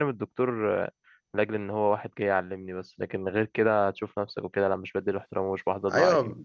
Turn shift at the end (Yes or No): Yes